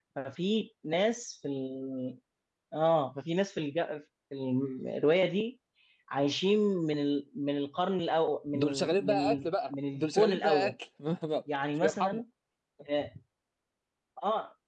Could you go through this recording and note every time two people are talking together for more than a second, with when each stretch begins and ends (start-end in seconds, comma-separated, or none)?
8.5-10.7